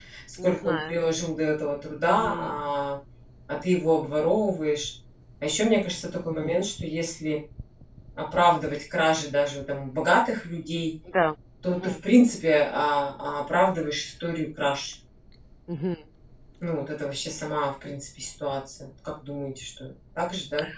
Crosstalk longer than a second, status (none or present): none